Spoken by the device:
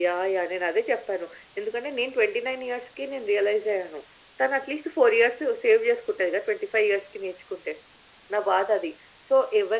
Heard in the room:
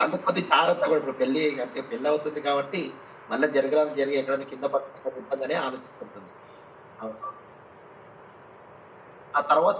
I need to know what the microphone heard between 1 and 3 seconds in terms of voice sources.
user only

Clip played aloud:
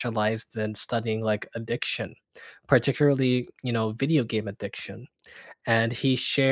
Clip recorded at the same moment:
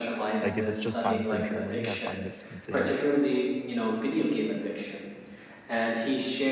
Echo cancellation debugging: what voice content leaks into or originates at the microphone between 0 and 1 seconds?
both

